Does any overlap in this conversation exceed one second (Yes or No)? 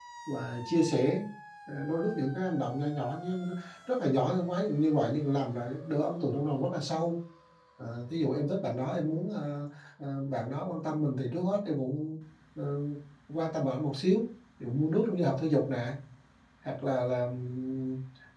No